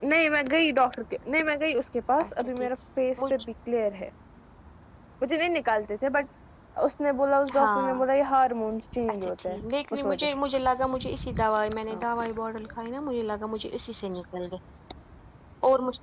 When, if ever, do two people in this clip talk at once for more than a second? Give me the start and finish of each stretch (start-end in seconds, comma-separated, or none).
none